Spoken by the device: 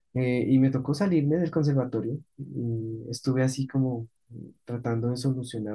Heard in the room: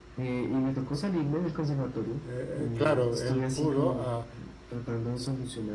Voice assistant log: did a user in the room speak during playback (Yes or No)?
Yes